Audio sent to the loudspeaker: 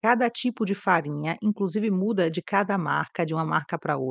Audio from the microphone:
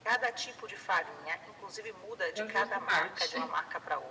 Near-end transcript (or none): De onde você parte?